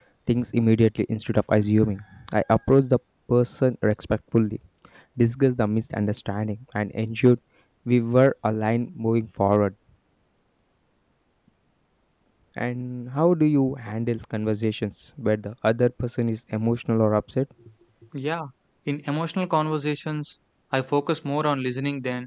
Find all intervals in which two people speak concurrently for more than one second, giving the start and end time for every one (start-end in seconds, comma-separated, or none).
none